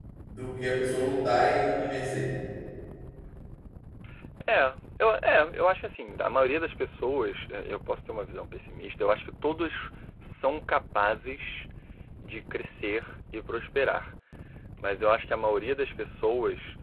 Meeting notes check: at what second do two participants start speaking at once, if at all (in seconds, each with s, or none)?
none